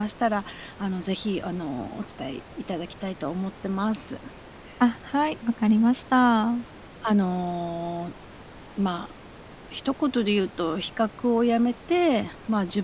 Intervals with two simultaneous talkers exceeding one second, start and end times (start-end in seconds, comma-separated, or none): none